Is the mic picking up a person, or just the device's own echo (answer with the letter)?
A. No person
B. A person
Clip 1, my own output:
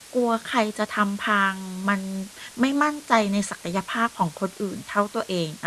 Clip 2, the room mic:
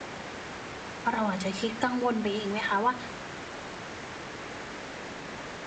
B